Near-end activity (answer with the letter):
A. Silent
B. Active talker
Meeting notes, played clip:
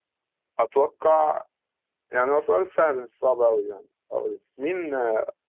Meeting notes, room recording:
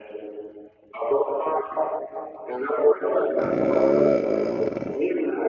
B